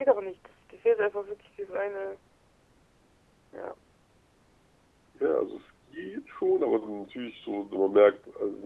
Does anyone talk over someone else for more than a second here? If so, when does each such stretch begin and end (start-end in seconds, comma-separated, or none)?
none